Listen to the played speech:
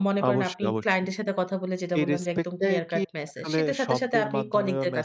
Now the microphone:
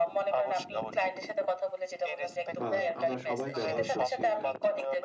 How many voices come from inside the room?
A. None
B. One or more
B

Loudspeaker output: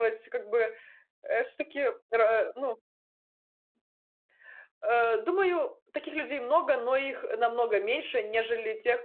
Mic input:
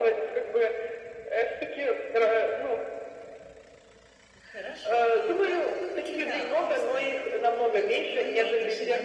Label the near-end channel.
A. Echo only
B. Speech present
B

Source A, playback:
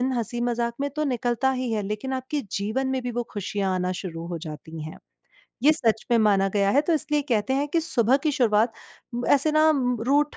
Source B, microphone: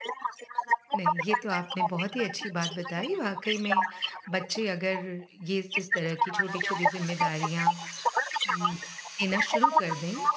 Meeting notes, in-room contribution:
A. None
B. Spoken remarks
B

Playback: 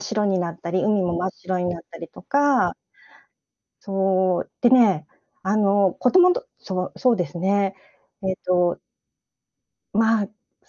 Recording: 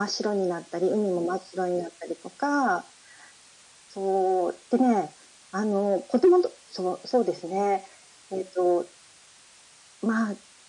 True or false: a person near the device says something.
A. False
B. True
A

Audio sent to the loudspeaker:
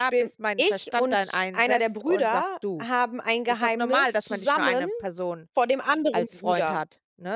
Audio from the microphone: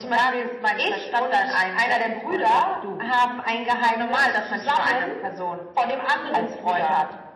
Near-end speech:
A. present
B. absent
B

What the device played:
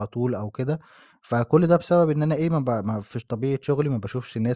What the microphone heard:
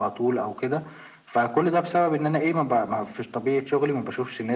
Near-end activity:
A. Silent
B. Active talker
A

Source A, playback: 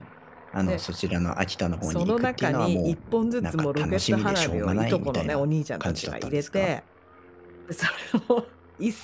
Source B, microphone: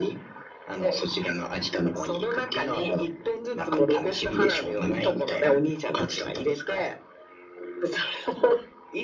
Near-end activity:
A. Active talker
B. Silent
B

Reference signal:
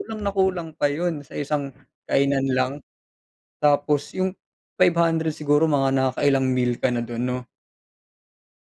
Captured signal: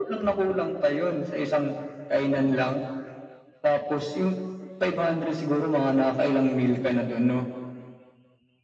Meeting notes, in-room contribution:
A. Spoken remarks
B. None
B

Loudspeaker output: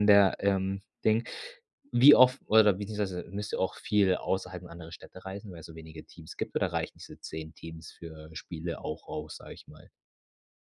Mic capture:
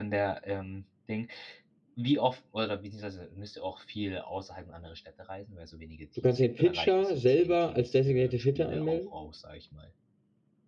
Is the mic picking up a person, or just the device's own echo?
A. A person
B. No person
A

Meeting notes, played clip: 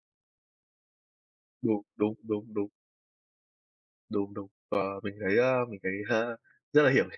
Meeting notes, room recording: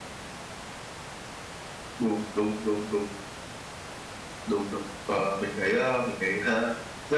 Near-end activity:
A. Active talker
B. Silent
B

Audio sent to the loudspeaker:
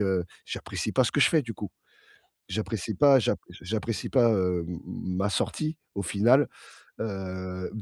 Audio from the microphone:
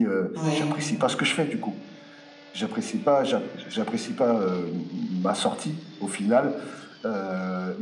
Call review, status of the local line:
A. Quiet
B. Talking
B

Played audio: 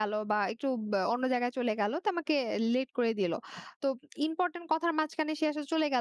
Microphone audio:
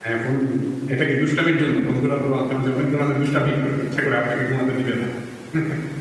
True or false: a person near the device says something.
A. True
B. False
A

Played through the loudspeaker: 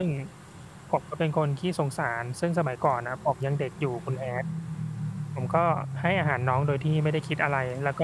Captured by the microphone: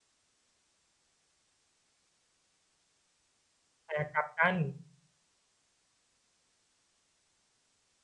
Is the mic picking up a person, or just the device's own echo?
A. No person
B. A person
B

